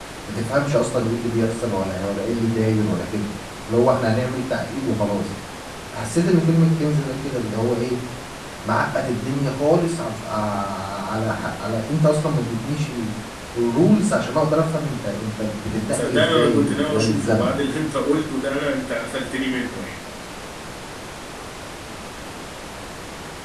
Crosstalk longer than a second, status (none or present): present